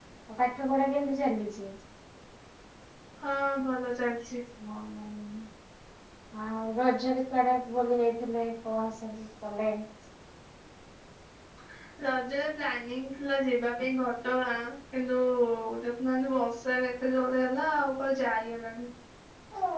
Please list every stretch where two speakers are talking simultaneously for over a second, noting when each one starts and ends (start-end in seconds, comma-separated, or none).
none